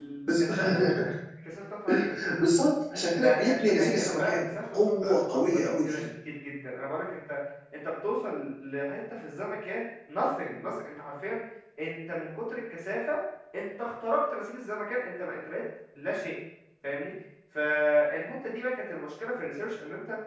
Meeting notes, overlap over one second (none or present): present